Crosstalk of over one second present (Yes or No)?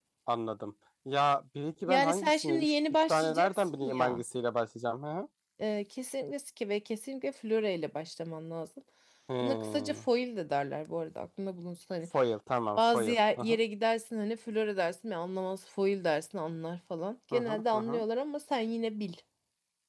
Yes